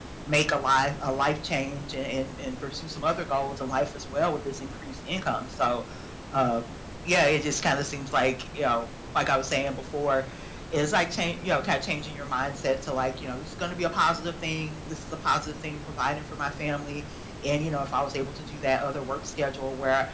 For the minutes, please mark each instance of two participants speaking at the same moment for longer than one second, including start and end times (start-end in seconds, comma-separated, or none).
none